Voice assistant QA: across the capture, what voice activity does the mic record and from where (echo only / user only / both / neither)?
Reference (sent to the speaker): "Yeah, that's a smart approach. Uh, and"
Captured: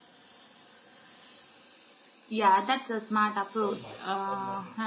both